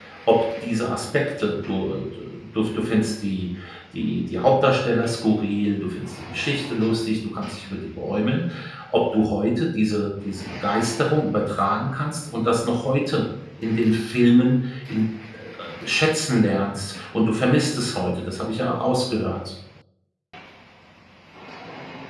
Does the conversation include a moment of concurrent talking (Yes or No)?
No